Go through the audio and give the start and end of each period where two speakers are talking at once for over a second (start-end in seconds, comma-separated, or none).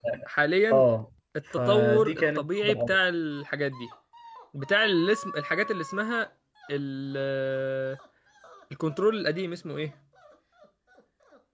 1.5-2.9